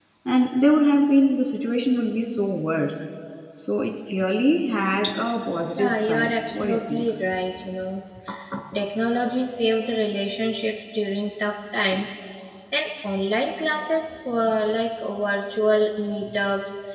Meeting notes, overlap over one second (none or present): present